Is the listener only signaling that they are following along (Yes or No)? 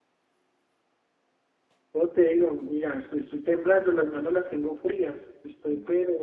No